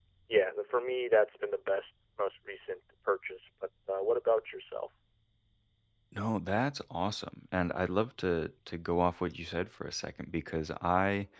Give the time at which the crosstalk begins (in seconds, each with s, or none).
none